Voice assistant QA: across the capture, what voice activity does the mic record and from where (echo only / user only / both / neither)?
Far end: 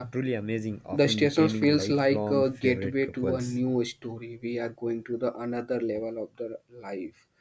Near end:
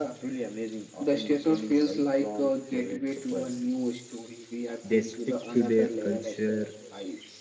both